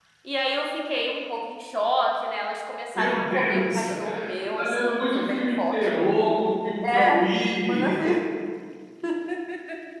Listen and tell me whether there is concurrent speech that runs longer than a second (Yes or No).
Yes